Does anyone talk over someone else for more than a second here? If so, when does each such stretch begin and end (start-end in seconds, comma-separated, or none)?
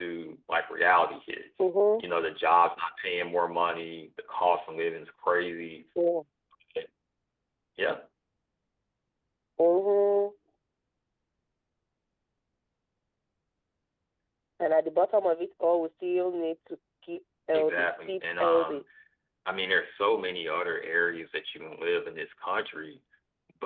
17.5-18.8